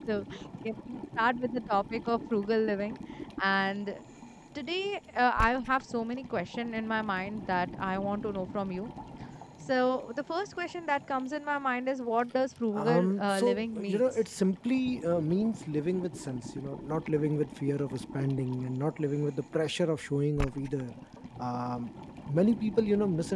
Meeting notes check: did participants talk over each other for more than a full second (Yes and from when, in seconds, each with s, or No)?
Yes, from 12.8 s